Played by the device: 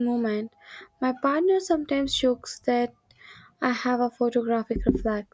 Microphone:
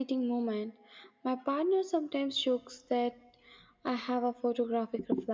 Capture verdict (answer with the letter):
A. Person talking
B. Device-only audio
B